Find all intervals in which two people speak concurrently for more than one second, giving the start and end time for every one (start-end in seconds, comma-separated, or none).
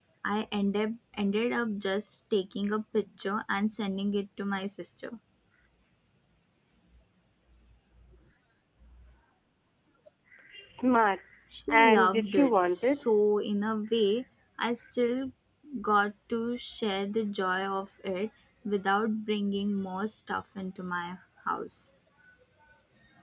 11.7-13.0